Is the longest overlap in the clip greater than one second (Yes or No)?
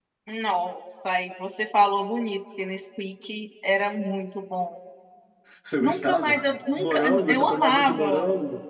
Yes